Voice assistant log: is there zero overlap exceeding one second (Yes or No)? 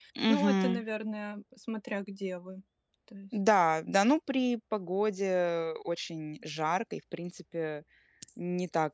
Yes